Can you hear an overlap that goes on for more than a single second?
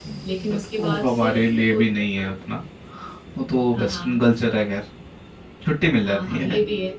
Yes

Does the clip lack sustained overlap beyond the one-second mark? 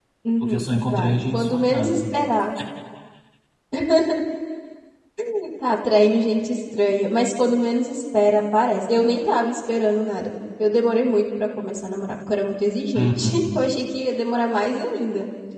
No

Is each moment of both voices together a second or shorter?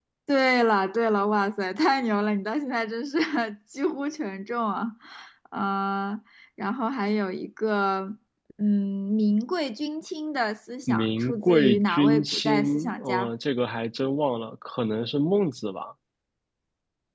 No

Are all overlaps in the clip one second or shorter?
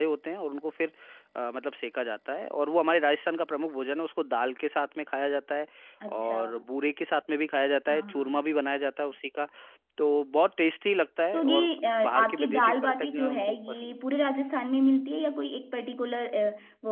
No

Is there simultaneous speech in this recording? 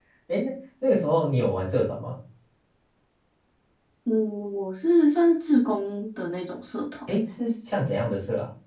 No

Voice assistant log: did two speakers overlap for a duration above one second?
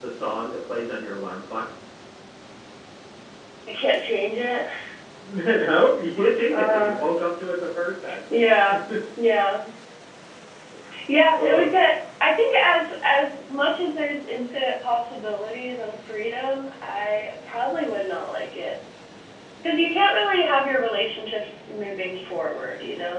No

